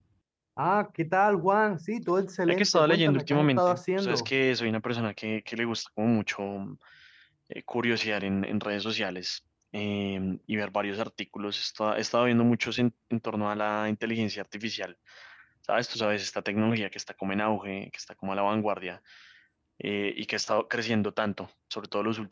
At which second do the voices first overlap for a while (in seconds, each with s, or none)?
2.5 s